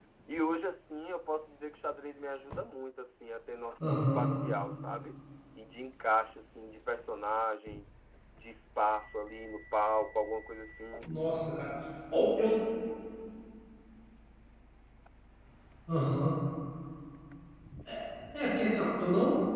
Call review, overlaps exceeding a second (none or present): none